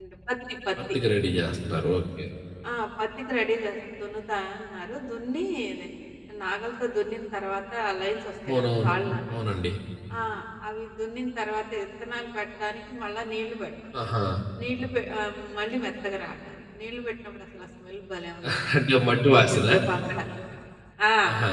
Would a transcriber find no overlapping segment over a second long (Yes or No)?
Yes